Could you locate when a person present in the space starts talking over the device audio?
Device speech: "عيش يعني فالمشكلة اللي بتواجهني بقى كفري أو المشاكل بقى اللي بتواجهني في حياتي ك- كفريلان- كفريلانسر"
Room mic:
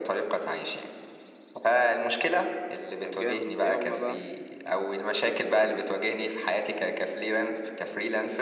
3.0 s

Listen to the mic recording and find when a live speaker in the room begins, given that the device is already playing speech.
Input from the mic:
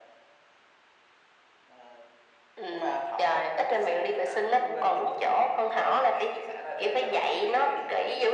none

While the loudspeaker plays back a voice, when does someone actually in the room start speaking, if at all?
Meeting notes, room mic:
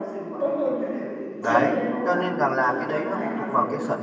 1.4 s

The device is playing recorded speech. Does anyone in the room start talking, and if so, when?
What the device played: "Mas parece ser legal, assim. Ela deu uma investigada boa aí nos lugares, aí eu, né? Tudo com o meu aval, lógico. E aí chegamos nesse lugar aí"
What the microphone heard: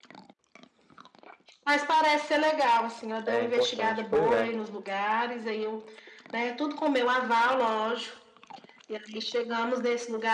3.2 s

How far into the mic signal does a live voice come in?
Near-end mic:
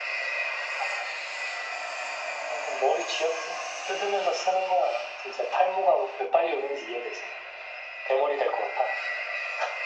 none

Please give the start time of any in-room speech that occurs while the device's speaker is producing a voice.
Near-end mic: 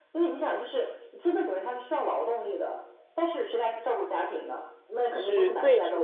5.1 s

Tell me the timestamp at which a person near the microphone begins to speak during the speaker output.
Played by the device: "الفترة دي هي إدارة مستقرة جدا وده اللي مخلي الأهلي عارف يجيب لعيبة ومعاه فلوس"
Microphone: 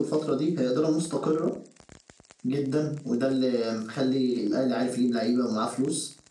none

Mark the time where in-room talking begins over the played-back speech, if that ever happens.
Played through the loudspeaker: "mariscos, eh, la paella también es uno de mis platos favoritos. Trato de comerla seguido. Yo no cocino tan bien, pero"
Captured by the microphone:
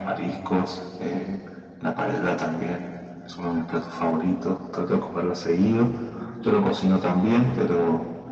none

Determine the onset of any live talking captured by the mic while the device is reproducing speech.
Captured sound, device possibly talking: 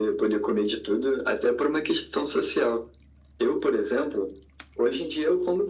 none

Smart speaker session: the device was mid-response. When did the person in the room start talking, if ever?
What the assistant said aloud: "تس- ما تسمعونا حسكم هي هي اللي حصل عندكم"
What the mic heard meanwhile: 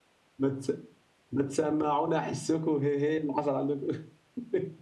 none

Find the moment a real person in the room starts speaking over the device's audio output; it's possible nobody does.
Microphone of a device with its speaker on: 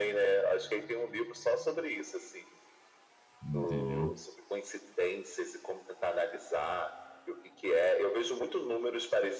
3.4 s

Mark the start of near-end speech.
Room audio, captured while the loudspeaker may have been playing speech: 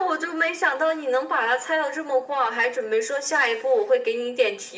none

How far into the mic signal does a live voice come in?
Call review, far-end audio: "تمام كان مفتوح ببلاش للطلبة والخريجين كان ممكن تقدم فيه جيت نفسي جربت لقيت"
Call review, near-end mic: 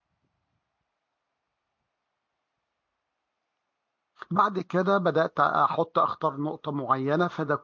4.3 s

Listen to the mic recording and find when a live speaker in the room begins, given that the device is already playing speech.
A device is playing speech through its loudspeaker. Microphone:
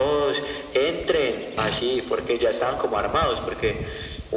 none

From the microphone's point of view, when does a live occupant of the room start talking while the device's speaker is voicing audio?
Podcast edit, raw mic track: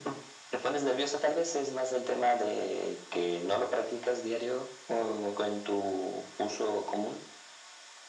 none

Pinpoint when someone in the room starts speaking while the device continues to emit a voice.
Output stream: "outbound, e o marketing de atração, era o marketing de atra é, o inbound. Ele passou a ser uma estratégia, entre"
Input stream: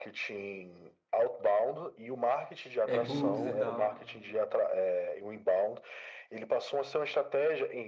2.8 s

